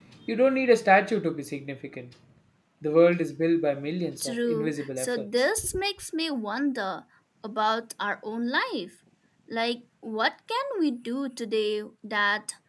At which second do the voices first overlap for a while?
4.2 s

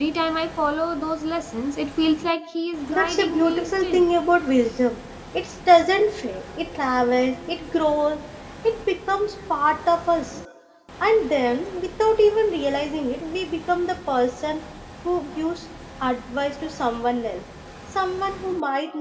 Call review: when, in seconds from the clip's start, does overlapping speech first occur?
2.9 s

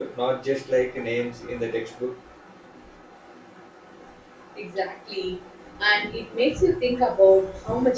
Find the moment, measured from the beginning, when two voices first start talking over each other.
none

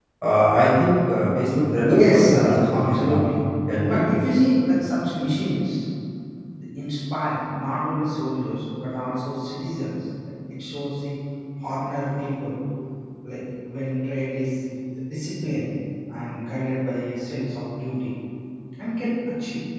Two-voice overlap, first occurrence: 1.8 s

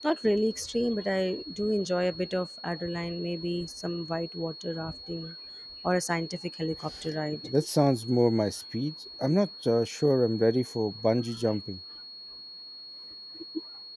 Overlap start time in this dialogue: none

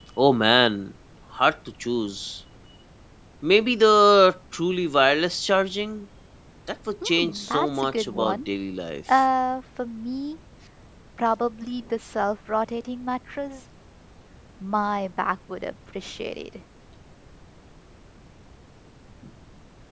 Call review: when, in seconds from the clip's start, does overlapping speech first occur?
7.0 s

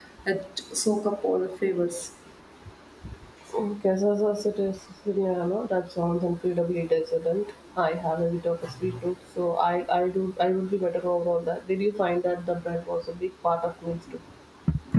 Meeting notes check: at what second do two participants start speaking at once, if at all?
none

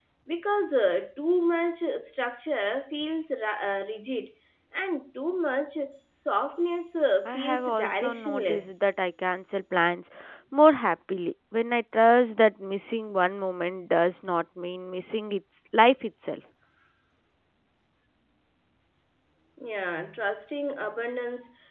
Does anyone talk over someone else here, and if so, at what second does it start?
7.2 s

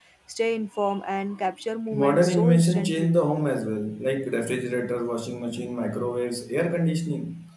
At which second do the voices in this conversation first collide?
1.9 s

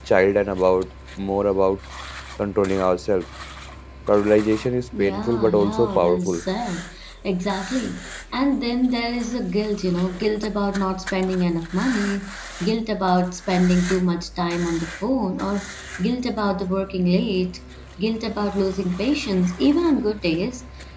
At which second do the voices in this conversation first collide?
4.9 s

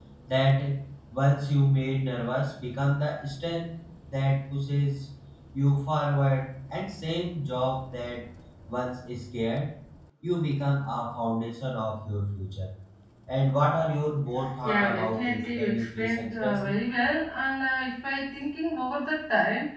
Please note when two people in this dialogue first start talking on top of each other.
14.6 s

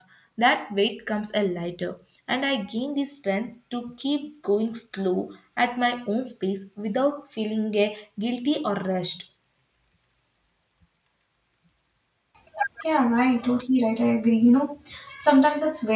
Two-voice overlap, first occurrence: none

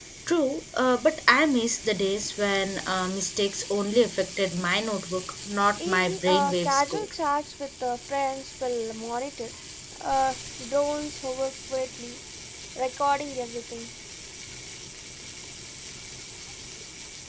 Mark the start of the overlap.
5.8 s

